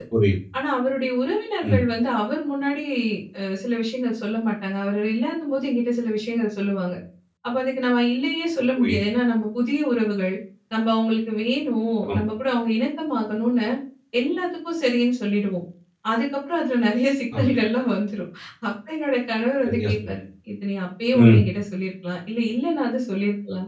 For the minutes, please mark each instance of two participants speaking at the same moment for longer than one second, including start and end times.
none

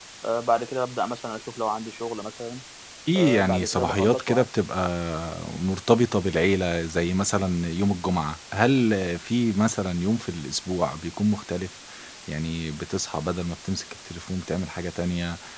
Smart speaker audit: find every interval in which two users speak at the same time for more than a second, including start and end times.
3.1-4.5

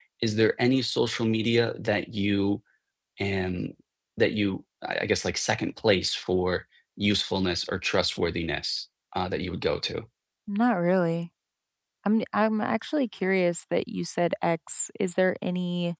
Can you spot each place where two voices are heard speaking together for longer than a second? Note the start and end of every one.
none

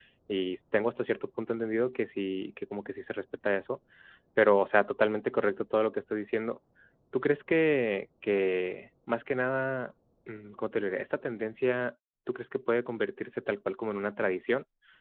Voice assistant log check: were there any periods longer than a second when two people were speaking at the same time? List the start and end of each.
none

